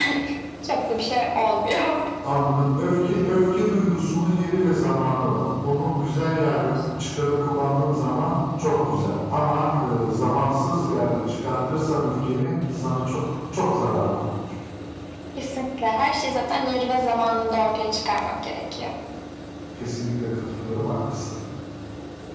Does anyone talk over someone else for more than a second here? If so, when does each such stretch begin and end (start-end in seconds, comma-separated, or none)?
none